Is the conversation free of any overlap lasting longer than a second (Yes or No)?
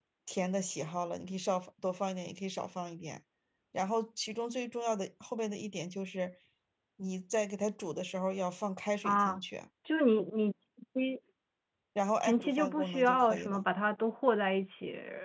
No